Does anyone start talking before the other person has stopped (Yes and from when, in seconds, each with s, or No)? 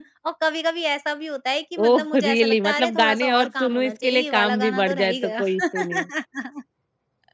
Yes, from 1.8 s